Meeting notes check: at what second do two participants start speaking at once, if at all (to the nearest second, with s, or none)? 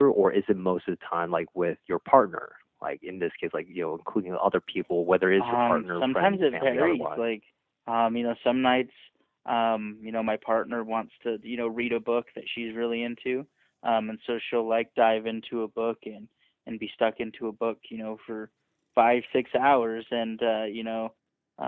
5 s